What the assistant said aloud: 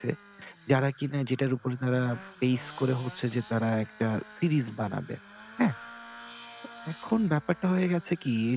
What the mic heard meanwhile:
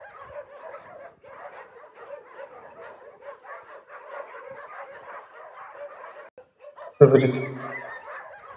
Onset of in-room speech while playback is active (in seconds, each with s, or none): 6.9 s